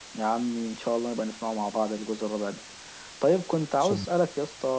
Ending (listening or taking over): listening